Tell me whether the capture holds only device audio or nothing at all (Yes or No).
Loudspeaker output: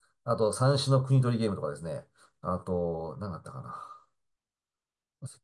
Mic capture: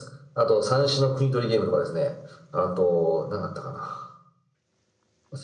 Yes